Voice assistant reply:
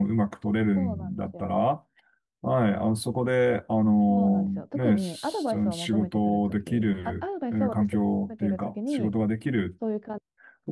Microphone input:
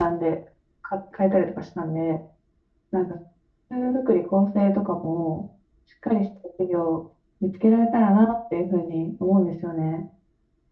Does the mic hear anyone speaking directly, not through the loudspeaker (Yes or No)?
Yes